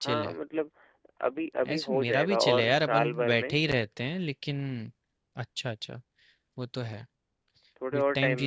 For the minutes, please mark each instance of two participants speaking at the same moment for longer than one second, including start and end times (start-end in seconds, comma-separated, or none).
1.7-3.6